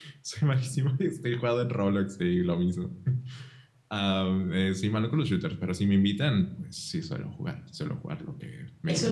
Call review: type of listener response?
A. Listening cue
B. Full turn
B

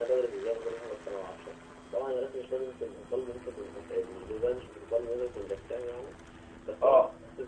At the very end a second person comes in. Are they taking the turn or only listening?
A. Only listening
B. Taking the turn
A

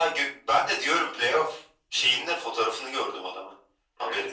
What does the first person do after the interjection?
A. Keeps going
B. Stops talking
B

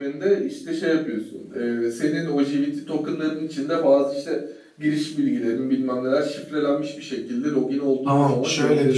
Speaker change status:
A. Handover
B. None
A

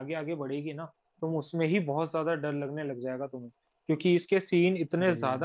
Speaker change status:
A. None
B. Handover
A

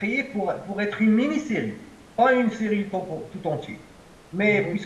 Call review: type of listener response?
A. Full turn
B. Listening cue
B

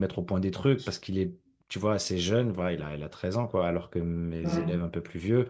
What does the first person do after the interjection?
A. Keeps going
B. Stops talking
A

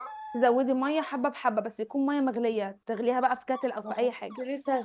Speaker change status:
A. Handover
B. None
A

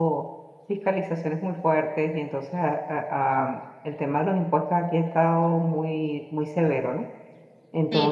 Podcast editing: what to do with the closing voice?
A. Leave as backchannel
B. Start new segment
A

